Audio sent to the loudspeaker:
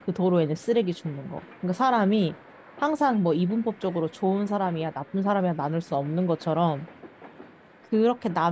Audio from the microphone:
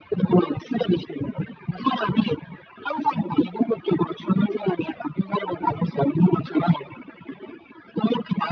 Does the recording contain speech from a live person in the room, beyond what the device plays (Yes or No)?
No